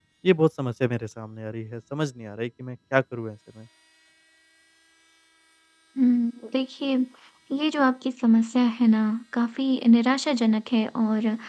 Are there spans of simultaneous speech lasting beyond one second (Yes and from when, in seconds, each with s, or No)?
No